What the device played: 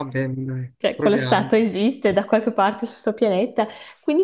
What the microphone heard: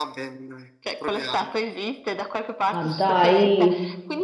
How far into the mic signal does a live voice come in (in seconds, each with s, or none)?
2.7 s